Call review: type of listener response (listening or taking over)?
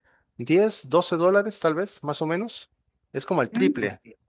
taking over